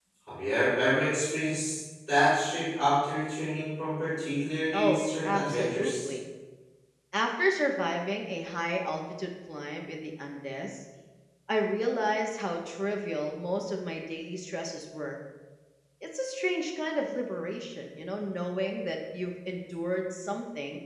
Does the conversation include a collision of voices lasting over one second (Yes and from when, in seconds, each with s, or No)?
Yes, from 4.7 s